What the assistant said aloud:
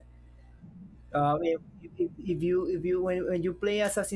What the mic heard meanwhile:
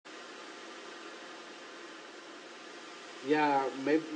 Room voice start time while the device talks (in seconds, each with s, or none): 3.2 s